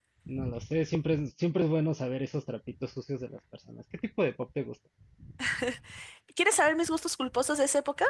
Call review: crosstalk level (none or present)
none